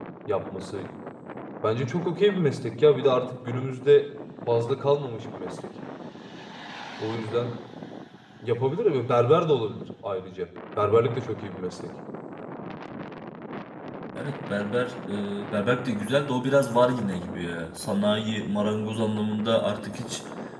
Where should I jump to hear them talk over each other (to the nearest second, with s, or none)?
none